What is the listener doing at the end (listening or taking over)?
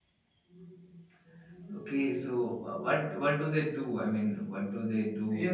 taking over